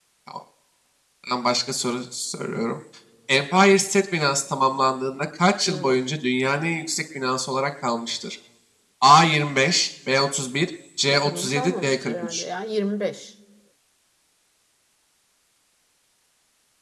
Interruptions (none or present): present